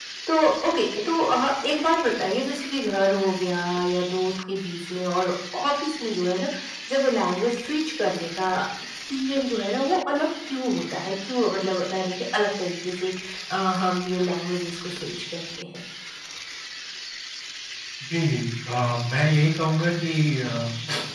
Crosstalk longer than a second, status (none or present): none